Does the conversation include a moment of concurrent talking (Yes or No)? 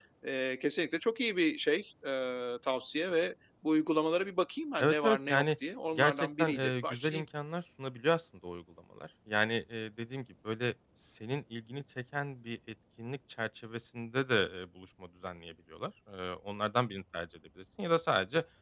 Yes